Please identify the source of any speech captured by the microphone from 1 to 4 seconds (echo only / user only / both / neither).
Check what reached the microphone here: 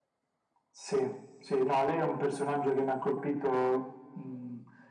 echo only